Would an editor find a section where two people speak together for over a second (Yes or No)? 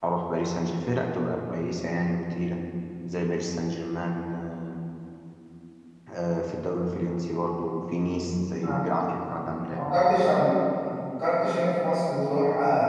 No